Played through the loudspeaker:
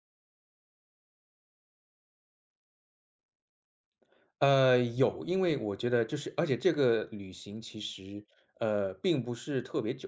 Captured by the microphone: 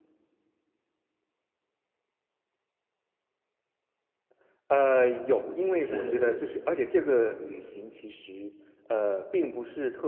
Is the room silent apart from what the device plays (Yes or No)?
No